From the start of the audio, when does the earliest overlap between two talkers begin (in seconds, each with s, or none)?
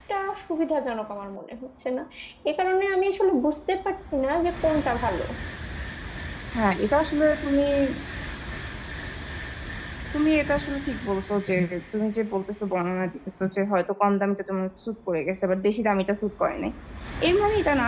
none